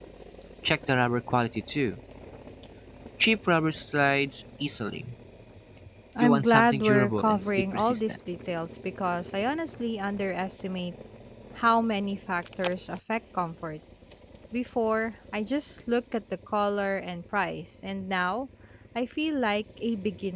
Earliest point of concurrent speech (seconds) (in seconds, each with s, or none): 6.2 s